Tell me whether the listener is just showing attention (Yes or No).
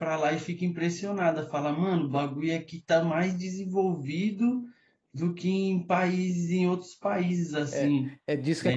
No